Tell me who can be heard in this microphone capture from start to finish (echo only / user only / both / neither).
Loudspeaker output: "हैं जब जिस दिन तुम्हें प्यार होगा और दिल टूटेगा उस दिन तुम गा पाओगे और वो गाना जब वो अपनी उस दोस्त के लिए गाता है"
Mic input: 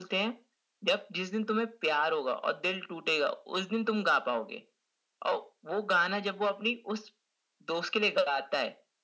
echo only